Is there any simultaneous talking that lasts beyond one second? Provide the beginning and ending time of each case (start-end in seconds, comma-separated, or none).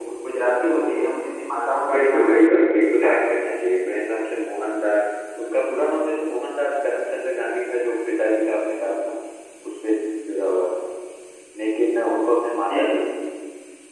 1.9-3.1